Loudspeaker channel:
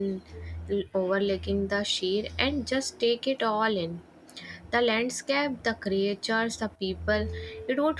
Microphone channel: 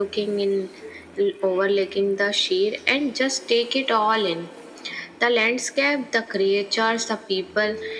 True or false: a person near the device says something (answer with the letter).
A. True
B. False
B